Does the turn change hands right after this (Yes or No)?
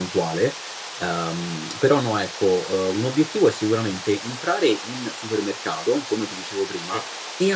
No